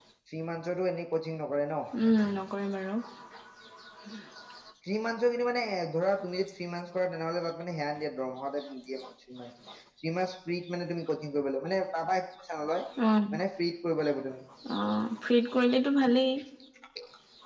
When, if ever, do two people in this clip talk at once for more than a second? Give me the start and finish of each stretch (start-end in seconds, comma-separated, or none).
none